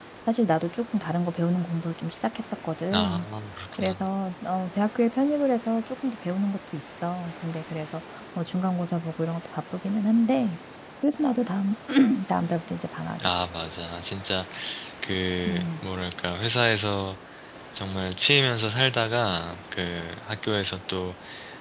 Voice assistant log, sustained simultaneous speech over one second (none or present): none